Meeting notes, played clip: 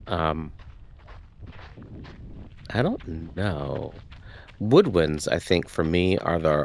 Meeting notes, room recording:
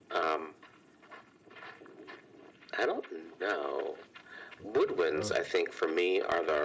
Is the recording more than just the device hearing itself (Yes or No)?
Yes